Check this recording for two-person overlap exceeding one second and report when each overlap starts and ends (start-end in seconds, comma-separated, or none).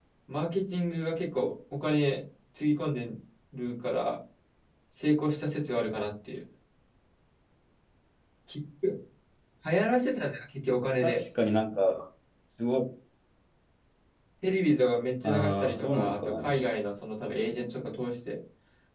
15.2-16.6